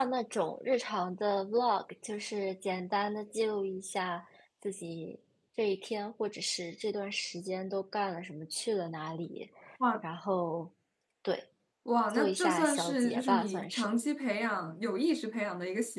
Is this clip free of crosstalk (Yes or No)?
No